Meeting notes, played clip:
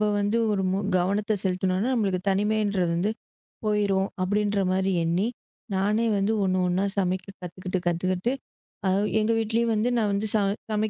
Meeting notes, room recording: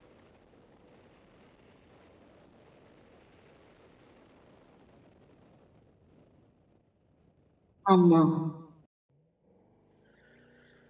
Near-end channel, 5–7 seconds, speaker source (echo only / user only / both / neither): neither